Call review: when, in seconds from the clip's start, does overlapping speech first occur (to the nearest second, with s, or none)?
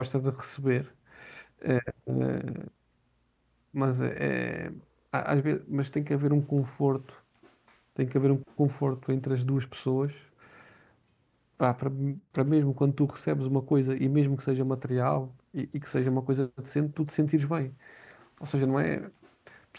none